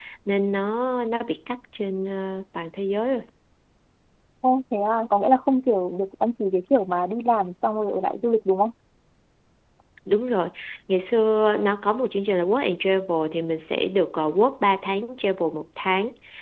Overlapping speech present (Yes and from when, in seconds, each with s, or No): No